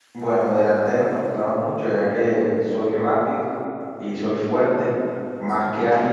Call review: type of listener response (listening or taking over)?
listening